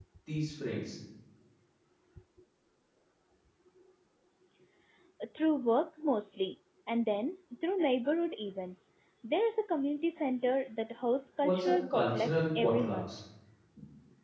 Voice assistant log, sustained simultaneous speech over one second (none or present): present